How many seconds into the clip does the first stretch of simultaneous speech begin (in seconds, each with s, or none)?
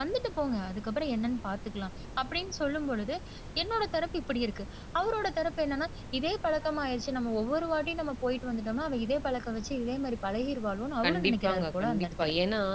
11.0 s